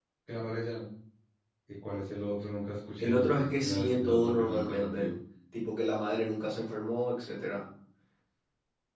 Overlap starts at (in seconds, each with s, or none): 3.0 s